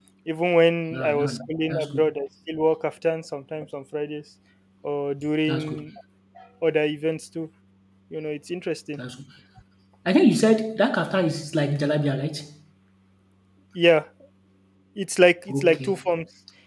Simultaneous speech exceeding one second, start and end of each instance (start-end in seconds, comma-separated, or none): 0.9-2.1